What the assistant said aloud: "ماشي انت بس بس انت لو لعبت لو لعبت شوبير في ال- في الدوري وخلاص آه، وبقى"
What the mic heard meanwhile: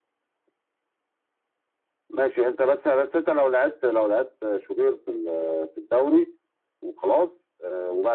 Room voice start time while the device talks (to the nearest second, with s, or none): none